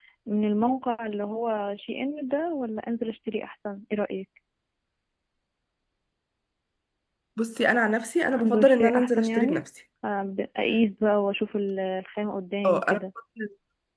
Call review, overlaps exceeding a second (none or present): present